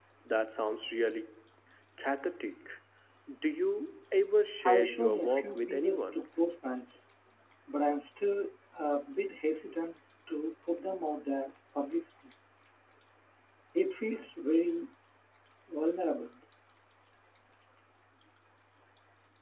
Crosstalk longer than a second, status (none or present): present